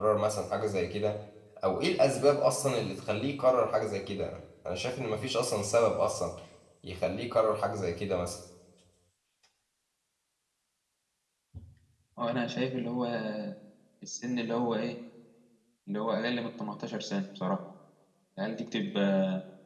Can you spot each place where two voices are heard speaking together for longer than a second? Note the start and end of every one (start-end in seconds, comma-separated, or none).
none